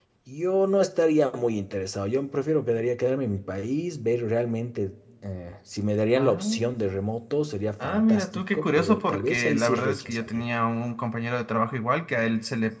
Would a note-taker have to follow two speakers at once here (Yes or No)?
Yes